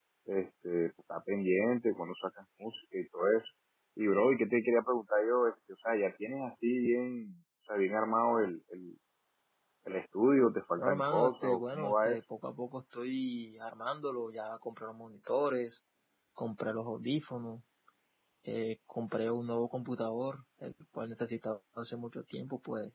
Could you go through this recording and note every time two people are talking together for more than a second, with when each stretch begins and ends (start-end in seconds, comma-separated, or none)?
10.8-12.2